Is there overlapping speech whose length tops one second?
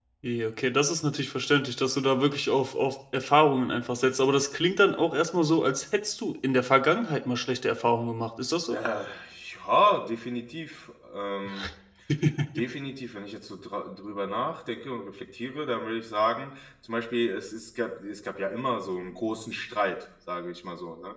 No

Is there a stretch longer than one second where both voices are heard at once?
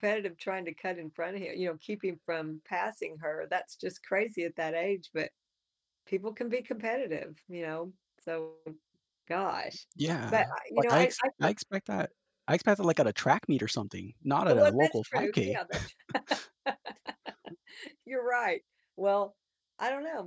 Yes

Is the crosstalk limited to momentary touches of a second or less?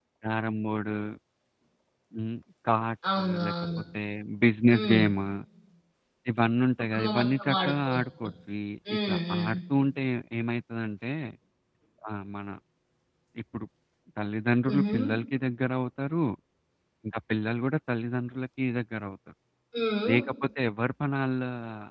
No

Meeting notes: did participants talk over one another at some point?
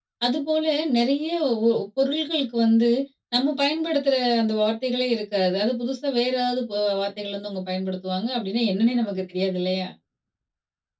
No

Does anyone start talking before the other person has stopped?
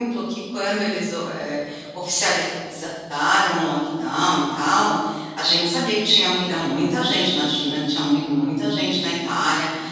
No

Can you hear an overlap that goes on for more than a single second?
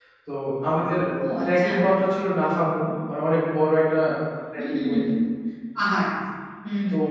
No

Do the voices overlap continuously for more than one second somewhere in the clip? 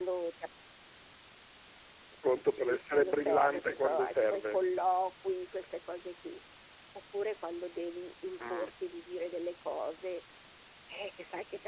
Yes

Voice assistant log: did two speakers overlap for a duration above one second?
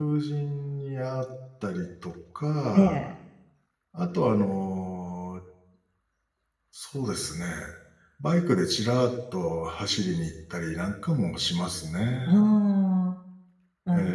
No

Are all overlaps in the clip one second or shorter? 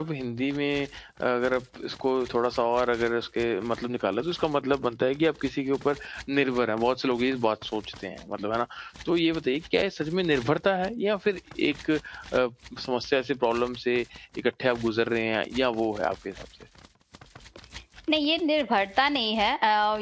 Yes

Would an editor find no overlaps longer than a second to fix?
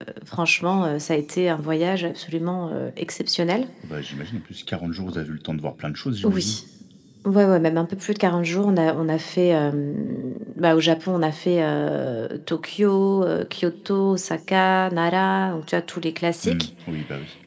Yes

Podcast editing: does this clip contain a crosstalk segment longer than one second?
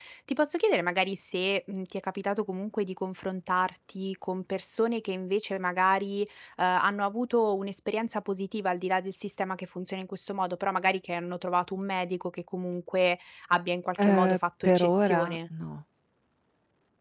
Yes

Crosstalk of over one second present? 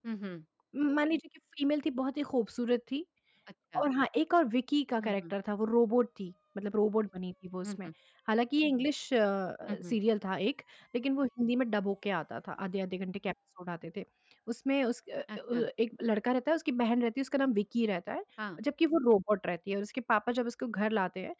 No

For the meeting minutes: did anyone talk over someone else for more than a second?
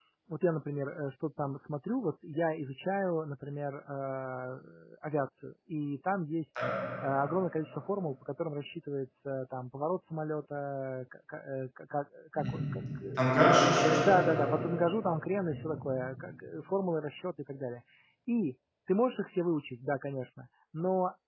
No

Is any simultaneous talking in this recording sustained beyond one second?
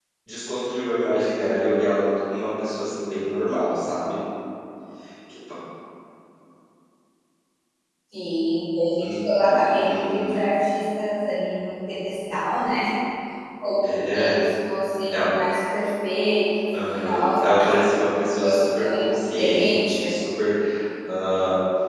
Yes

